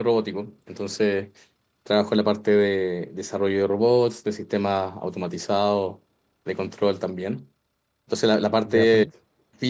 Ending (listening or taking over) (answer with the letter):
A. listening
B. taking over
A